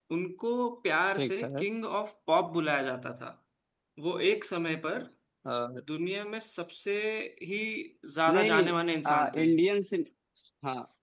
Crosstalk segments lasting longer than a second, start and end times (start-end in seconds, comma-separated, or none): none